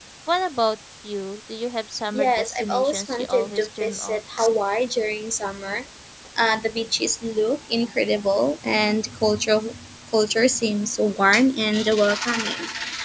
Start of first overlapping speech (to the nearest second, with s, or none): 2 s